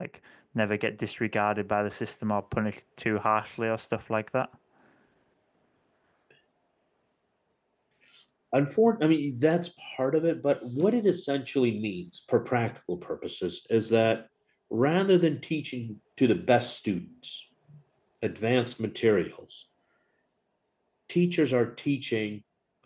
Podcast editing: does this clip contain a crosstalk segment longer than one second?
No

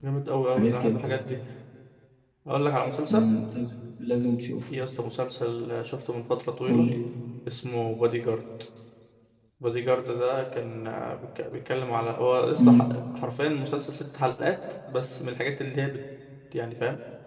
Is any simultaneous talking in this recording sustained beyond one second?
No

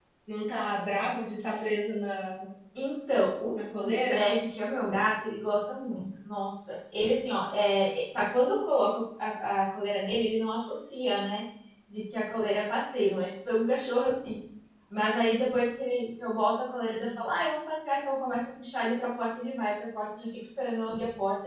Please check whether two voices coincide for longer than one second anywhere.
No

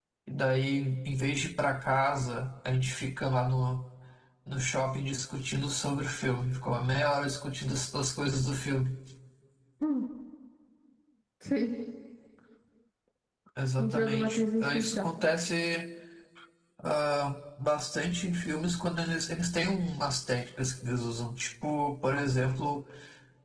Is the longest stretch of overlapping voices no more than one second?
No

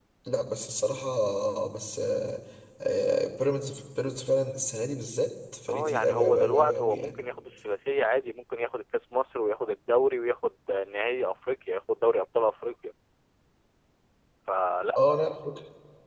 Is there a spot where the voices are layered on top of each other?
Yes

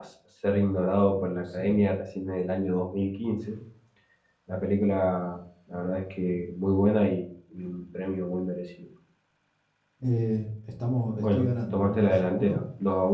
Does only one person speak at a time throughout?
No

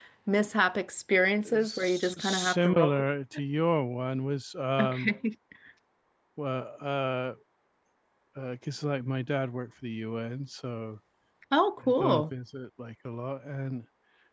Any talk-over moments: Yes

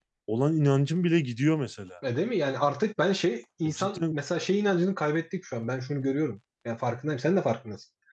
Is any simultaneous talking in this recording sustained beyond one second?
No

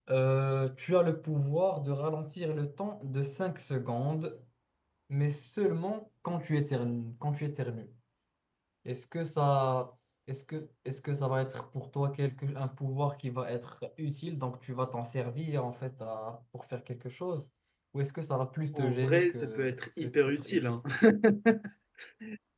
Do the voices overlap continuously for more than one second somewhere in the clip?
Yes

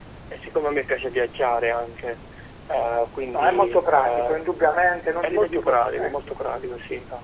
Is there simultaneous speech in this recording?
Yes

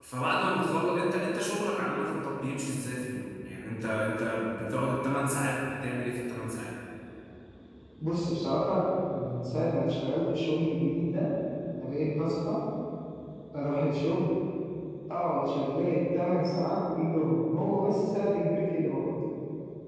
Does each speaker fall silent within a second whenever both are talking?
Yes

